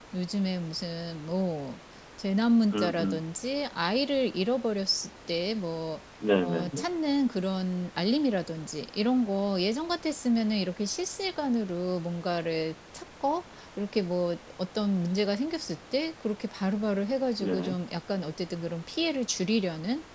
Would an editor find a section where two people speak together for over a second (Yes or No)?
No